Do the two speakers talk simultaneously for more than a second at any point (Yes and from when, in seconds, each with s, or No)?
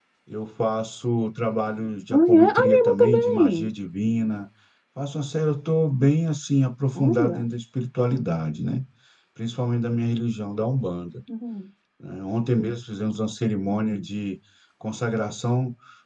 Yes, from 2.1 s